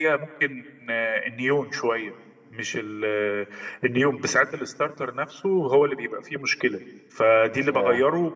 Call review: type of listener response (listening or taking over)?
listening